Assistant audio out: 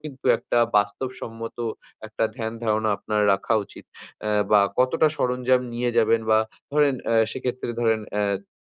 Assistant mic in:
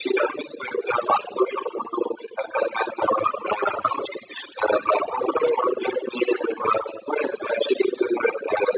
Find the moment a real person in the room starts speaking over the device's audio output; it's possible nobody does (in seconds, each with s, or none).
none